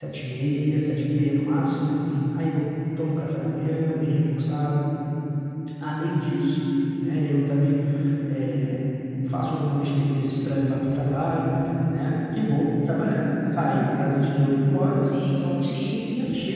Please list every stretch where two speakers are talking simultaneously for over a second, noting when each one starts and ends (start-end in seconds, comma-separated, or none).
none